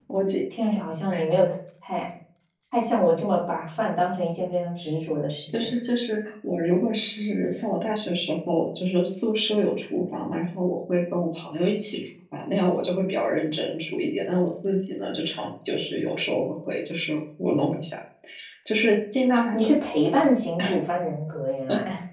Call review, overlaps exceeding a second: none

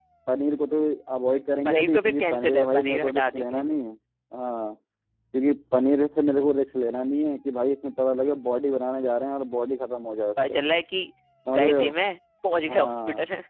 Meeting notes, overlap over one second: present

